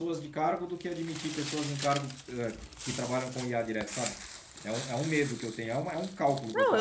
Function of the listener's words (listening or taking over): taking over